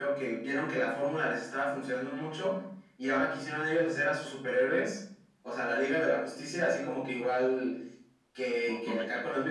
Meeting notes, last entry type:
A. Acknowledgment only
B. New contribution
A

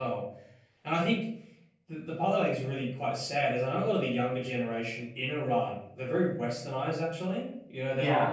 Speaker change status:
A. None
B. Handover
A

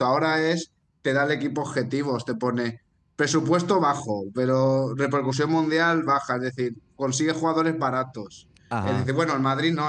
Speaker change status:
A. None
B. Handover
A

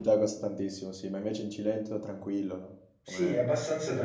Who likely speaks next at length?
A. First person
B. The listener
B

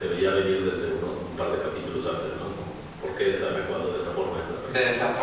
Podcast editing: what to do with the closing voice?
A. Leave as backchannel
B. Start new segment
B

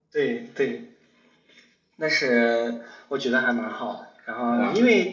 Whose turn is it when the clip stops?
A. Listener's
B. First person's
B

